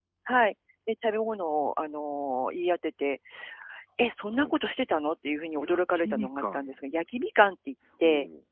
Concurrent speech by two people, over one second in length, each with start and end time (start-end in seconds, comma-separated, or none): 5.6-6.8